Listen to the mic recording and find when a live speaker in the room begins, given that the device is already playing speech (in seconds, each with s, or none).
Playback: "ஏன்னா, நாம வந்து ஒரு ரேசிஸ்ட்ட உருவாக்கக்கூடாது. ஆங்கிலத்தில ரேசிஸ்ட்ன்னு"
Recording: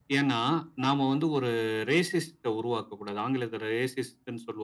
none